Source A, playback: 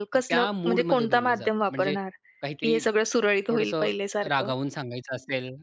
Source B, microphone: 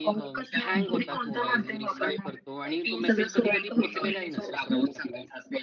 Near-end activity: present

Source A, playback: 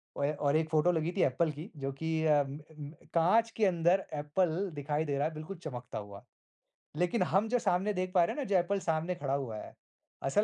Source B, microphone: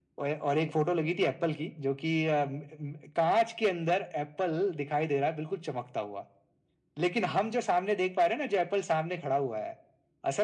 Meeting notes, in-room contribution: present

